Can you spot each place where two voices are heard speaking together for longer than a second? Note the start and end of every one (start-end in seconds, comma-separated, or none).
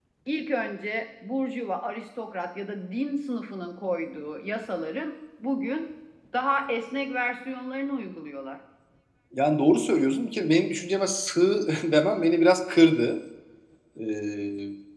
none